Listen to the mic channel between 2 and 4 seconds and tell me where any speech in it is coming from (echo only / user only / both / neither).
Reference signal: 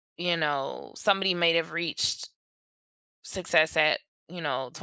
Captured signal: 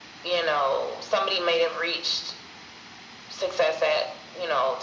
echo only